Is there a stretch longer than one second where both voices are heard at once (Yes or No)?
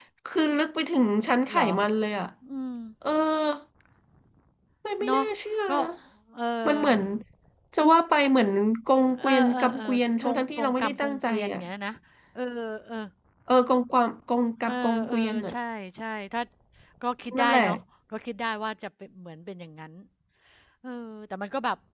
Yes